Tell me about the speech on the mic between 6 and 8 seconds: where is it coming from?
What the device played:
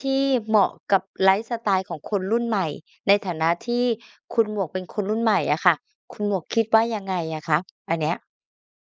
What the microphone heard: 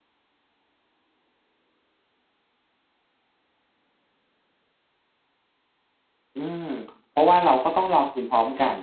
user only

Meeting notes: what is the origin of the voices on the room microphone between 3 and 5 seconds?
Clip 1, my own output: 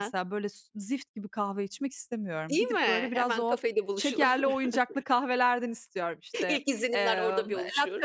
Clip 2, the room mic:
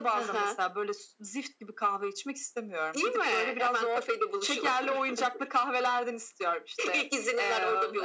echo only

